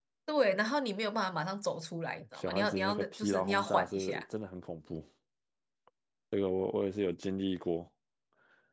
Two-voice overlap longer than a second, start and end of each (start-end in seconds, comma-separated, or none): 2.4-4.2